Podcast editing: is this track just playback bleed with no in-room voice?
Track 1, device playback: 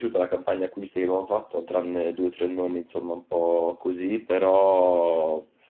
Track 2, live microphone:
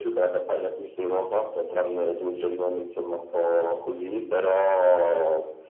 Yes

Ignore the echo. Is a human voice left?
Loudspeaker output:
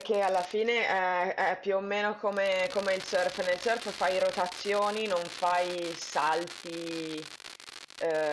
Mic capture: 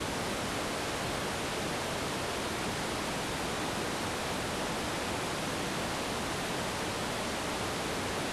No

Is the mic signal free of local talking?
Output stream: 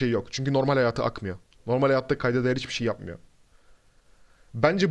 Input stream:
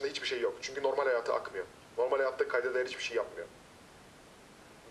Yes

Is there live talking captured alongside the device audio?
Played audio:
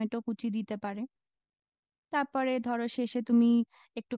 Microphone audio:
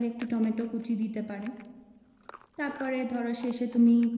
No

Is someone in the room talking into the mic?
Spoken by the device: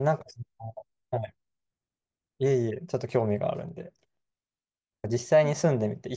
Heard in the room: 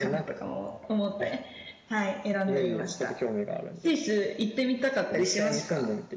Yes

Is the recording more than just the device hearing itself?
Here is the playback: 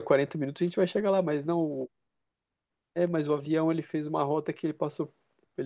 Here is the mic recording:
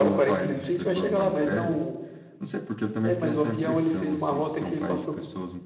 Yes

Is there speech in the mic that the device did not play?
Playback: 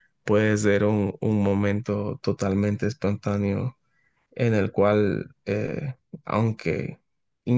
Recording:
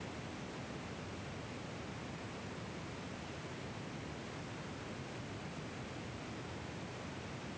No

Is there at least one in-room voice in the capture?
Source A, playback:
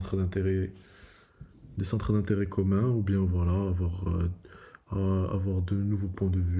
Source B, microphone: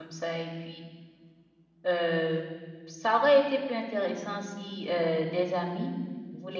Yes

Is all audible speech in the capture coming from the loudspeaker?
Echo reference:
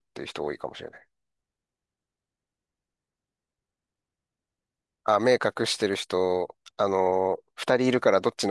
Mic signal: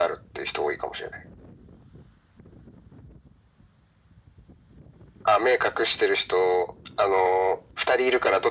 Yes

